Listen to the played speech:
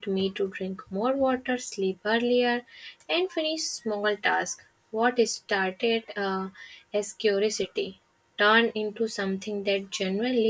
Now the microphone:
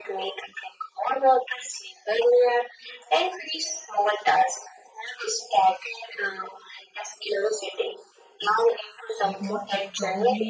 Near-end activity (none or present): present